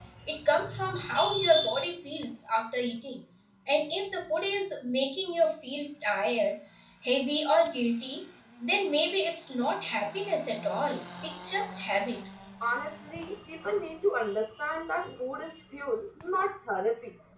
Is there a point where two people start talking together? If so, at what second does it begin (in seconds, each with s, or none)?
none